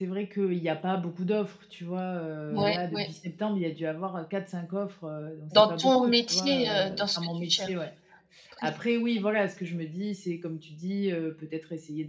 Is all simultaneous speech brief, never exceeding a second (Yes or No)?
No